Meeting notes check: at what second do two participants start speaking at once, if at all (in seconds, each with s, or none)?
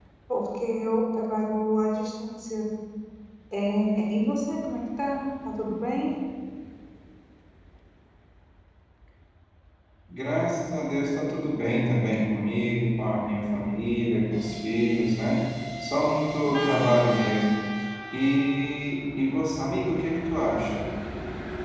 none